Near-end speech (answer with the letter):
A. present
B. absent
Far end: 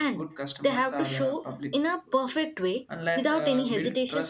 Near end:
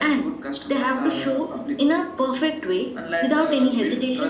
B